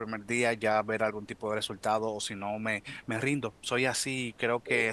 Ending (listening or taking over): taking over